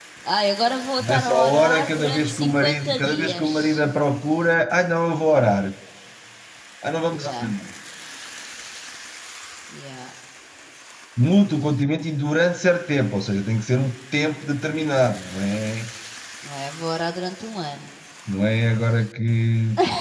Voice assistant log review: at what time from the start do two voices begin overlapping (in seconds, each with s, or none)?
1.1 s